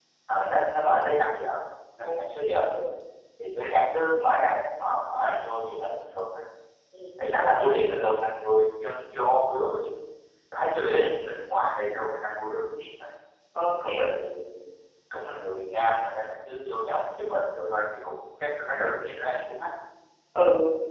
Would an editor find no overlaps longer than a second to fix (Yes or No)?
Yes